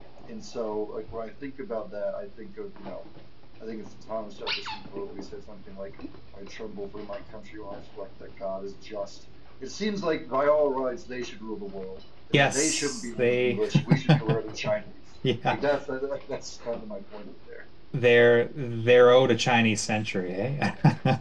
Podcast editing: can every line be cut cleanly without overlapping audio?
No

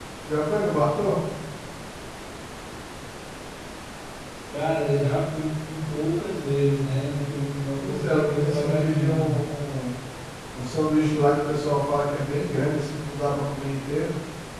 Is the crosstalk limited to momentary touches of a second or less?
No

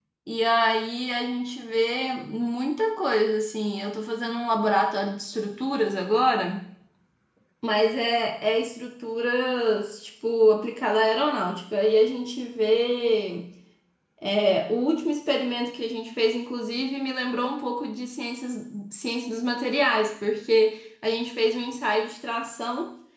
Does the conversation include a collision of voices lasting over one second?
No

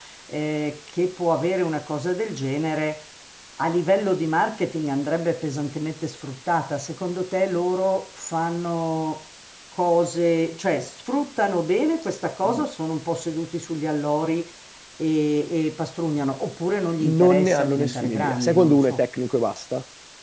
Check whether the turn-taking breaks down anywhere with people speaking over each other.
Yes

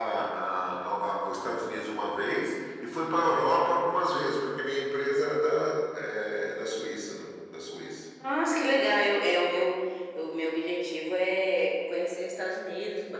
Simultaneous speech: No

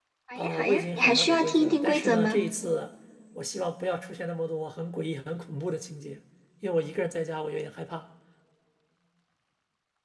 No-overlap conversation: No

